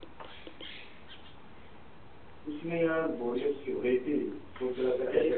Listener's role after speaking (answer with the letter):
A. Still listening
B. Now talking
A